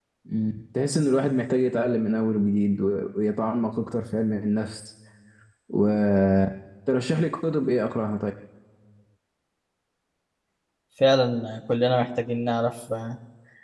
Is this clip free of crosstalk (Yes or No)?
Yes